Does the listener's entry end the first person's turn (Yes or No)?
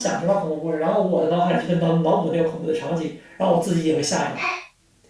Yes